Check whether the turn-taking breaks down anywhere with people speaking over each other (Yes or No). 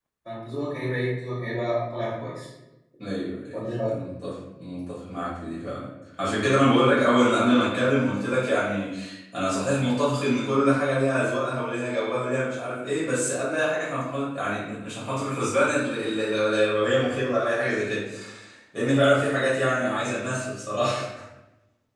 No